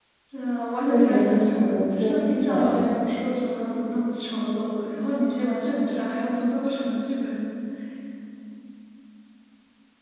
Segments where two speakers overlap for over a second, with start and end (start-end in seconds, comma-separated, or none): 0.9-2.8